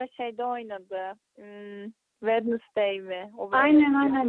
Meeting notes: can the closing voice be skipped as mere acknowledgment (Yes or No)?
No